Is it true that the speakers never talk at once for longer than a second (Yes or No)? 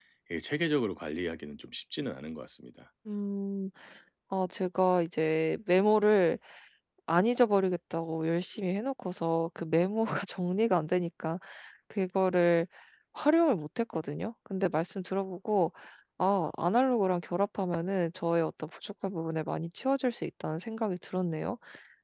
Yes